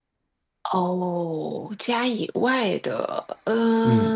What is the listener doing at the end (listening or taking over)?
taking over